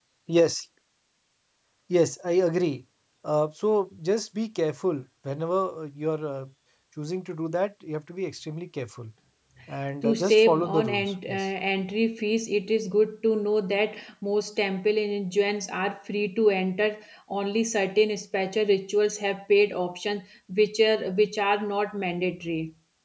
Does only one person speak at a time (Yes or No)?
No